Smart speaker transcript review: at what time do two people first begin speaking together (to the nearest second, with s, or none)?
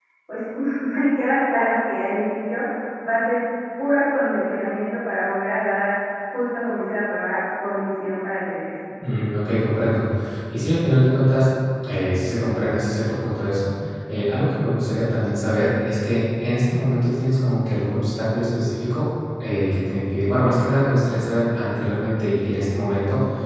none